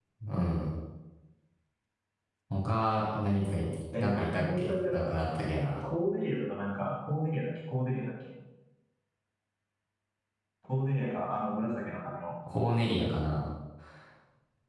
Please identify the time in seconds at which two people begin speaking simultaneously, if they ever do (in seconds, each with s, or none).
3.9 s